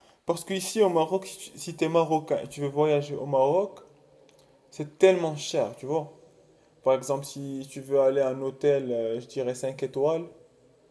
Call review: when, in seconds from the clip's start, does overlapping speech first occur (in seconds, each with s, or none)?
none